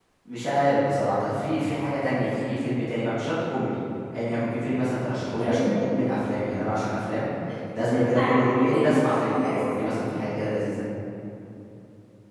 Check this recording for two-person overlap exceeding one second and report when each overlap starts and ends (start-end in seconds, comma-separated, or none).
7.7-9.6